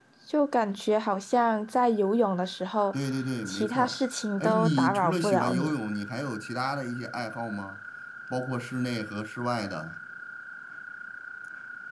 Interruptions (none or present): present